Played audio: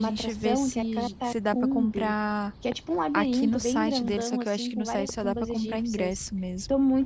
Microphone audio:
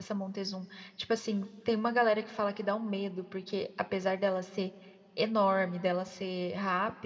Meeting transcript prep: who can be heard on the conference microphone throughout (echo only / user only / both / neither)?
user only